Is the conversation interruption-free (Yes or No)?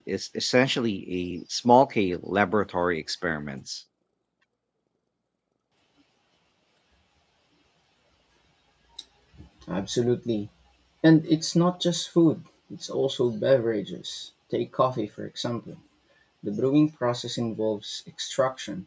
Yes